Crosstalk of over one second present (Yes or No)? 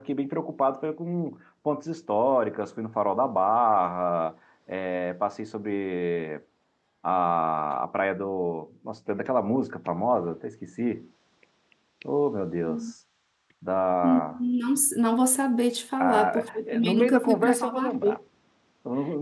Yes